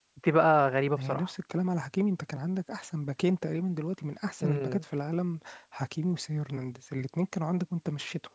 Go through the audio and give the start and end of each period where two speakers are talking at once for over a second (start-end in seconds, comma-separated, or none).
none